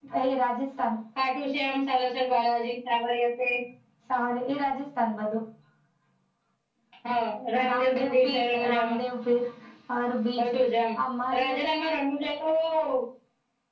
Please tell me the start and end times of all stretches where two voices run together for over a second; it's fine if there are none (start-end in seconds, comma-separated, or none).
7.7-9.0